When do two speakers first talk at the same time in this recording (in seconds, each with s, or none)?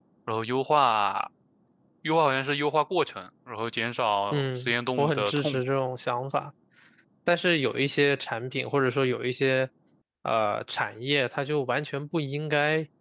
4.3 s